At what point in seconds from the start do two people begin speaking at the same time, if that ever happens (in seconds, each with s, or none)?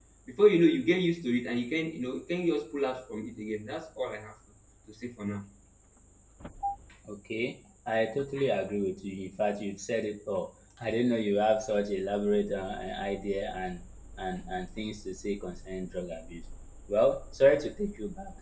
none